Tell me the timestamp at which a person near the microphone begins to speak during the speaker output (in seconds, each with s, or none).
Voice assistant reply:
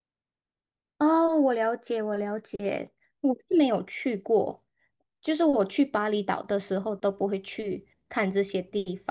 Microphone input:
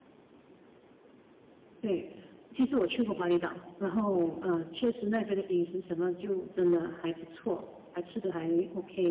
1.8 s